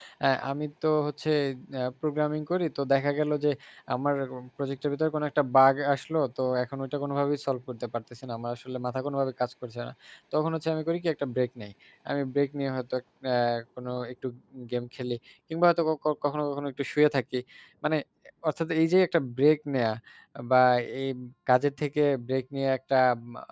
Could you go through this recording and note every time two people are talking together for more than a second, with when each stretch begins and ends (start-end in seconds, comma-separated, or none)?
none